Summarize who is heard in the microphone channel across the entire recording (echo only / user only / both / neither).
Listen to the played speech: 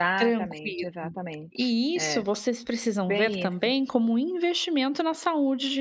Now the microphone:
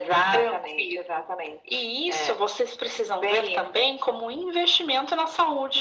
echo only